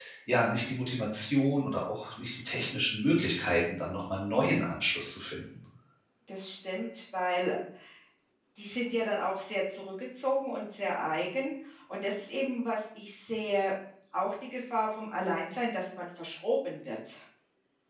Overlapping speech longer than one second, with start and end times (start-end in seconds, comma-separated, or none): none